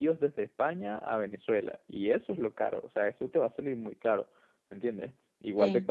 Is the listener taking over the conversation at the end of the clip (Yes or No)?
No